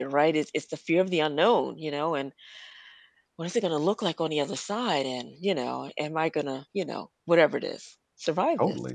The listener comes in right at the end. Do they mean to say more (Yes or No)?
Yes